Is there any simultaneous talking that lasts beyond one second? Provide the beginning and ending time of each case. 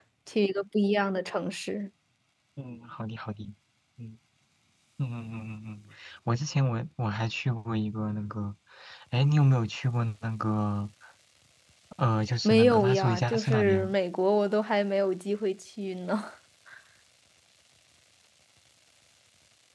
12.4-13.9

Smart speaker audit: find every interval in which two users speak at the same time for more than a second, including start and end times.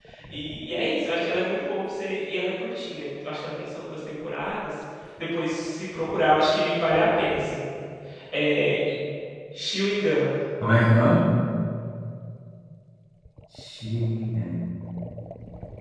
none

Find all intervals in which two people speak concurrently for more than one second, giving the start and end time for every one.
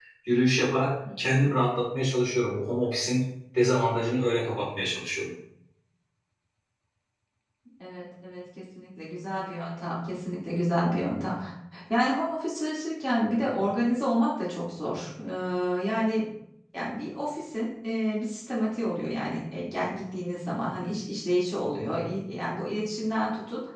none

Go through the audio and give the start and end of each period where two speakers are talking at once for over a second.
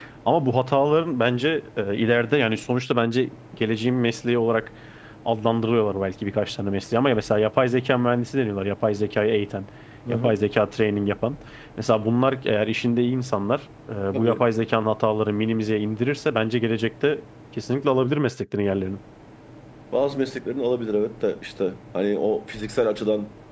none

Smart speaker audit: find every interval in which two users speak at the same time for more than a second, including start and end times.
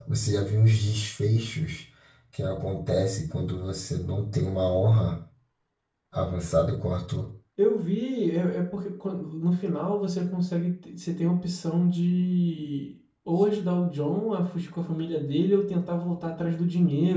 none

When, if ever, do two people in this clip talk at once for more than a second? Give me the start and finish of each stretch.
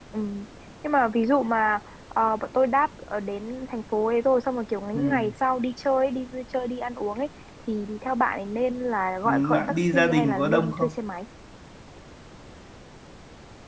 9.2-10.9

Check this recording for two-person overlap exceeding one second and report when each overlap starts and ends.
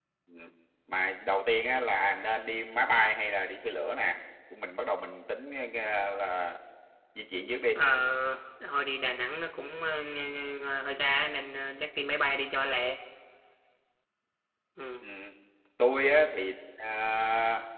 none

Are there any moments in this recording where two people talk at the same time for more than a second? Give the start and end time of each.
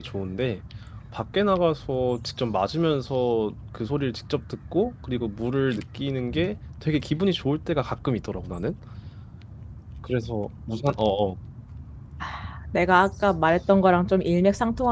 none

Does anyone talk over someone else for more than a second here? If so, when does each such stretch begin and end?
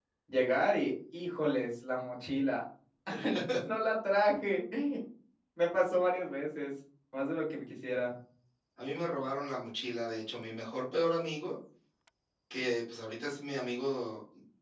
none

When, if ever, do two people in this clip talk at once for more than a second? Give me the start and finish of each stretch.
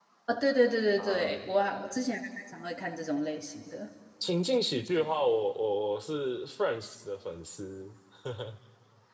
none

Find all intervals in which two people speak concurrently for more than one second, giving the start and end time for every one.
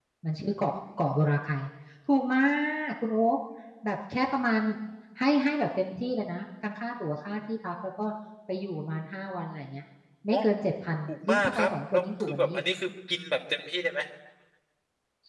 11.1-12.6

